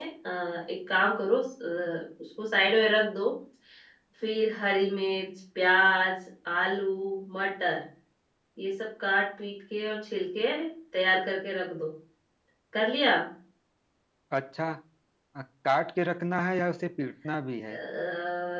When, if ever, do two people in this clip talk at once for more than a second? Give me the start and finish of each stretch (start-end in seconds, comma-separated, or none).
none